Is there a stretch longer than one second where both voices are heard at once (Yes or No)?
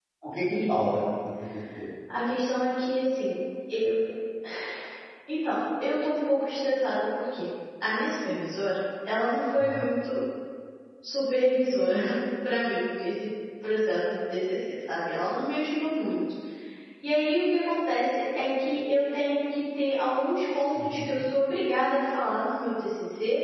No